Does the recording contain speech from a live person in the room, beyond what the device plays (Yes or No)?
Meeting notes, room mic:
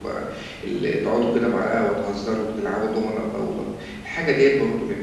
No